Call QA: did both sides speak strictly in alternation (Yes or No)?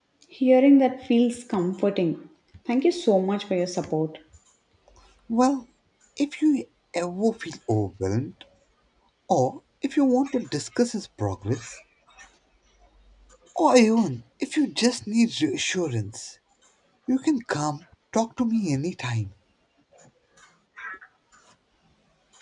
Yes